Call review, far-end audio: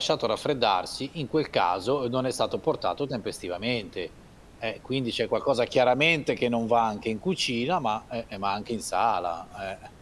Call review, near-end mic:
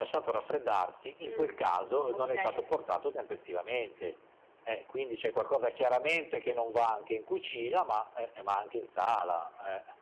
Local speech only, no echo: Mh. Okay.

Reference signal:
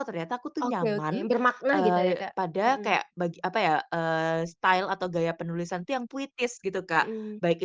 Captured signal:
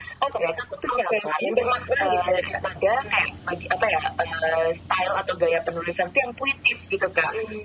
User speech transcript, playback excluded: none

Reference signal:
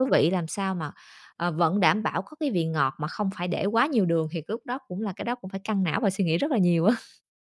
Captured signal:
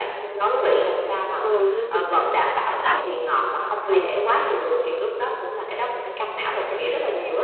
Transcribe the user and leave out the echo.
Ừ, thế thì người ta cứ cứ thích ăn những cái đồ quen. Ừ.

